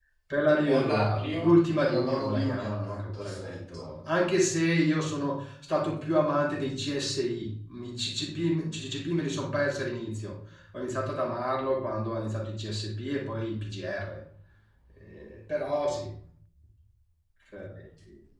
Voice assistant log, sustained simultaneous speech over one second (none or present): present